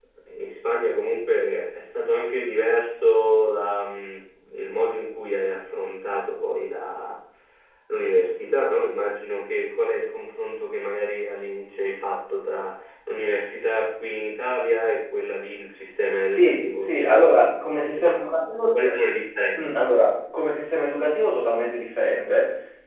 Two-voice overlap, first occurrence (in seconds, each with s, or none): 16.4 s